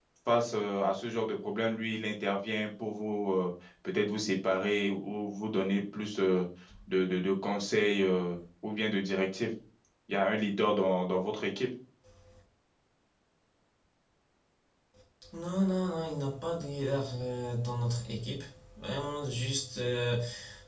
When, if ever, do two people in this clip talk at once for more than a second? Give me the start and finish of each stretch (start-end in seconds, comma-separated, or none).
none